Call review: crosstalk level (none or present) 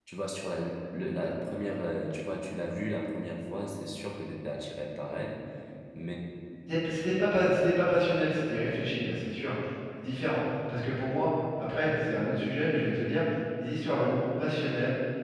none